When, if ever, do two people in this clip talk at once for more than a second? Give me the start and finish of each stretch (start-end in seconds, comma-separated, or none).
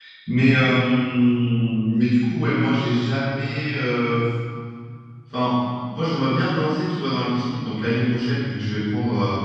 none